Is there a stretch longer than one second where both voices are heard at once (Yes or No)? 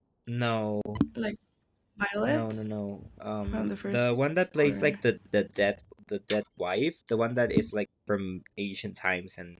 Yes